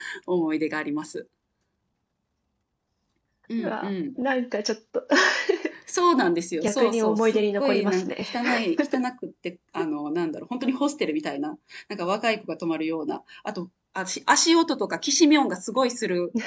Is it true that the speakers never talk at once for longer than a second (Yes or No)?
No